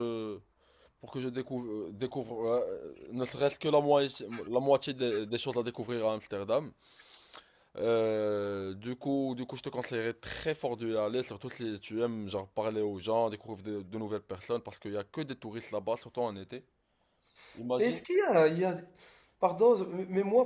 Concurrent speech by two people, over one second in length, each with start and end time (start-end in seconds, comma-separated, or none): none